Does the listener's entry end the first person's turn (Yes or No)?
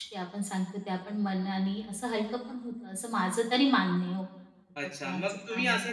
Yes